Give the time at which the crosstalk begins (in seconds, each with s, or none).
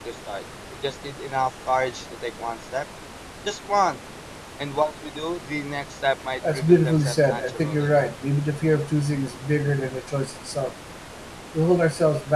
6.4 s